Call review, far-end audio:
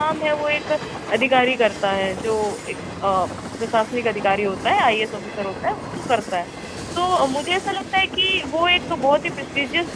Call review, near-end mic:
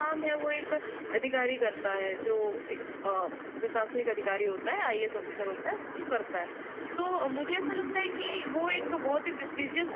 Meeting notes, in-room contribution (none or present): present